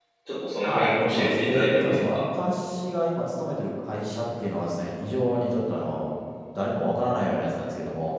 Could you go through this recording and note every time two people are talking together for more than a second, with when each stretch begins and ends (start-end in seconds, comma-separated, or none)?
0.6-2.2